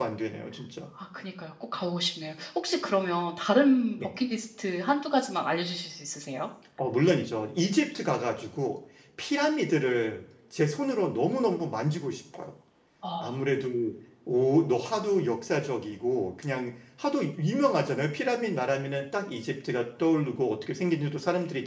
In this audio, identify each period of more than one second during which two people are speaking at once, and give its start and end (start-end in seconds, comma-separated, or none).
none